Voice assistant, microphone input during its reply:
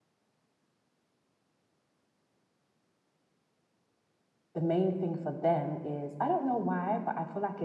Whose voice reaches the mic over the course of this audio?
user only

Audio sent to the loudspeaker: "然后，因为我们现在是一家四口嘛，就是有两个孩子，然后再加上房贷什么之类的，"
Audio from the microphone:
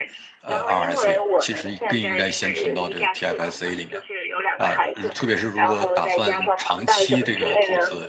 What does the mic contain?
both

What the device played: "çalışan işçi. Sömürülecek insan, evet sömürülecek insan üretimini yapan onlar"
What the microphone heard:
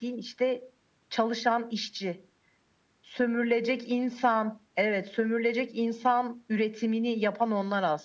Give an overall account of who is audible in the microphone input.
echo only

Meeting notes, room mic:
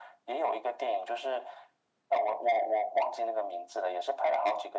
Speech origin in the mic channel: echo only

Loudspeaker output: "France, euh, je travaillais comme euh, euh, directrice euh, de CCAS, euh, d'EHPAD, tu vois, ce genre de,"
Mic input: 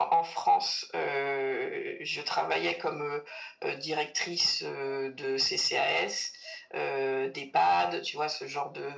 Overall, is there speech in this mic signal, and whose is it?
echo only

